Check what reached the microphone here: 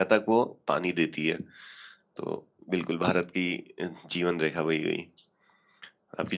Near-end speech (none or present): present